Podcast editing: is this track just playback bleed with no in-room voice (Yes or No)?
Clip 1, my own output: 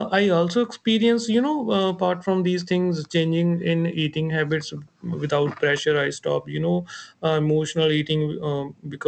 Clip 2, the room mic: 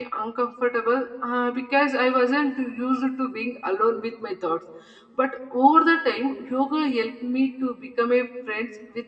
No